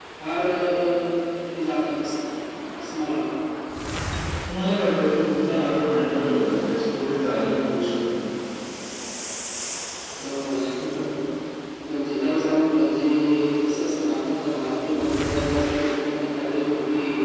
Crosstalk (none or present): none